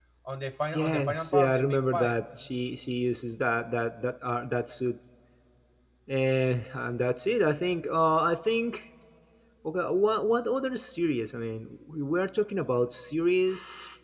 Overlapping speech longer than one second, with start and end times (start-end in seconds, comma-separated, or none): 0.7-2.2